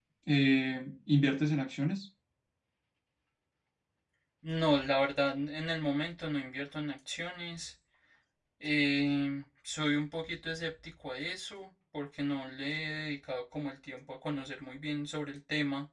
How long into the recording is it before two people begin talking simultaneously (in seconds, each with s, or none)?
none